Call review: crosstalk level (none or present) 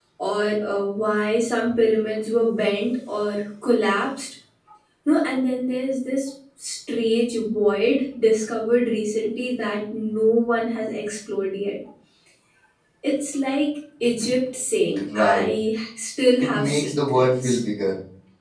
present